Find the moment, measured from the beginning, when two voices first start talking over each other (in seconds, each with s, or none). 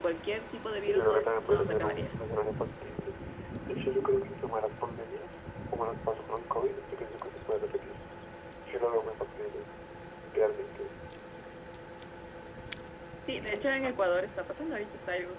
0.8 s